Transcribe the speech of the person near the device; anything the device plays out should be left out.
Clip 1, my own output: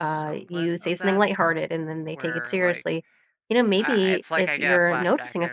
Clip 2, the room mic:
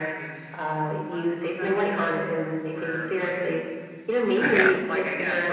But yeah,

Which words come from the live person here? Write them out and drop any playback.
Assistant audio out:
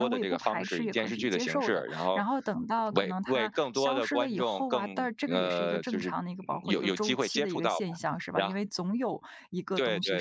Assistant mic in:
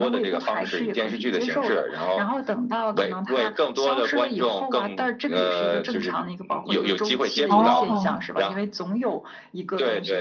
哦，

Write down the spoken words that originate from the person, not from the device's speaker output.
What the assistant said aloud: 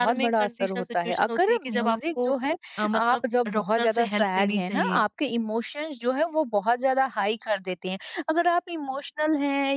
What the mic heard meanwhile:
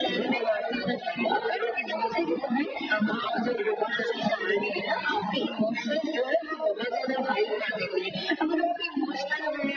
none

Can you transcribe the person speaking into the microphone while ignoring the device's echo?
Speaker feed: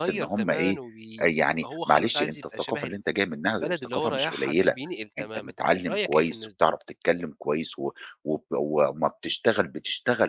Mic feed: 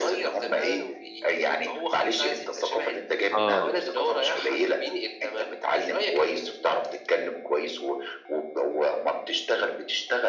آه.

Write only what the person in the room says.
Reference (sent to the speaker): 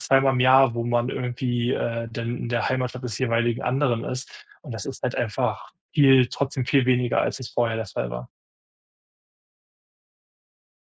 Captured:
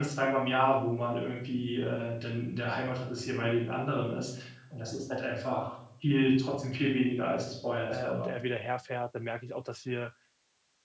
äh, und er wieder herfährt, dann merke ich auch, dass wir

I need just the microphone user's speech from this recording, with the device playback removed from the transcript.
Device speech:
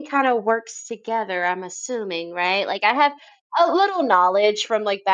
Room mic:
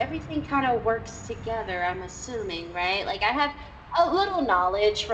none

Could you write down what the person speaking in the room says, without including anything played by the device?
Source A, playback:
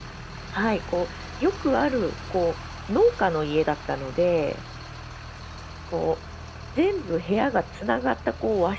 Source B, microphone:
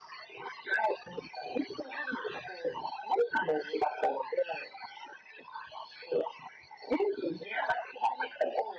none

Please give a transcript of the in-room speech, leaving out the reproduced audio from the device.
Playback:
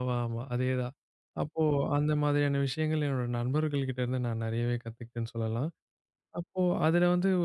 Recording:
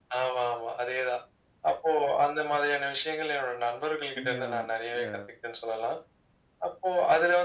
நீங்க அ

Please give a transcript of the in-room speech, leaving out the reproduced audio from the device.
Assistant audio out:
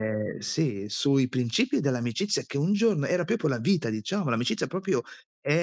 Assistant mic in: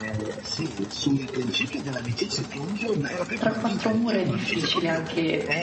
tra 4 mura è difficile anche

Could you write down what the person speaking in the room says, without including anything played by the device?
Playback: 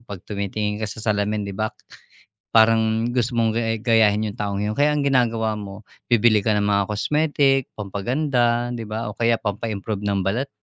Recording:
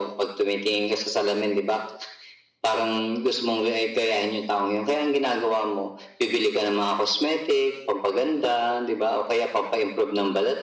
none

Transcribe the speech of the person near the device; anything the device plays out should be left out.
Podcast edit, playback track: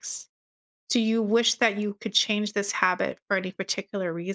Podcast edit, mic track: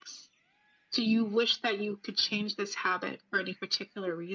none

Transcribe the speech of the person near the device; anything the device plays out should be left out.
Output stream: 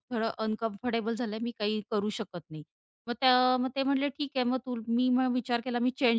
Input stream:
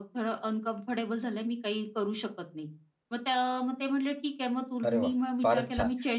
अरे वाह! फारच छान.

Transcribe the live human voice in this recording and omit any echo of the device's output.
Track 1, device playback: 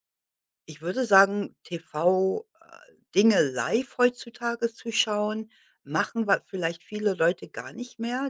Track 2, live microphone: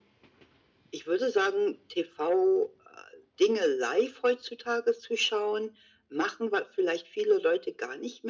none

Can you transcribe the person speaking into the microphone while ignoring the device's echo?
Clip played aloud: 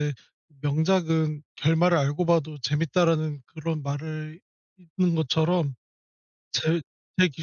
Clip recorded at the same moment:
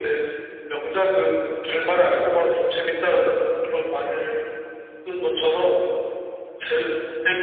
none

